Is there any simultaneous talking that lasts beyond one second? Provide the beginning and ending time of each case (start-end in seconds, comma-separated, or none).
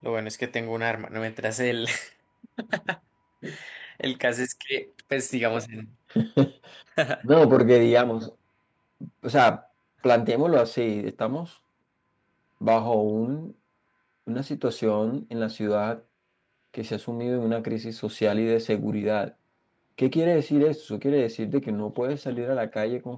none